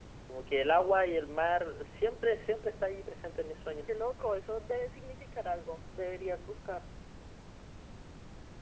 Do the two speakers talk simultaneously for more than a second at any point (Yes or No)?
No